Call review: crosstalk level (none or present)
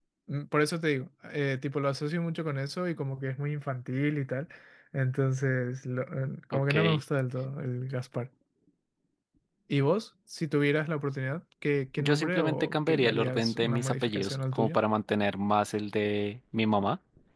present